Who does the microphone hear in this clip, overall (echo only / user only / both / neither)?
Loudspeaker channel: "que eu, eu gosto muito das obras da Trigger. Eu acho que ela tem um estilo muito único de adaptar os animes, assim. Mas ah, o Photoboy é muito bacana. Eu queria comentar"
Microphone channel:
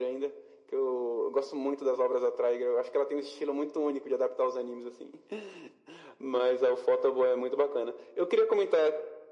echo only